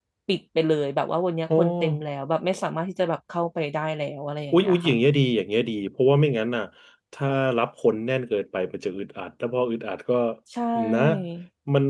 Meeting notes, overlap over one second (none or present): none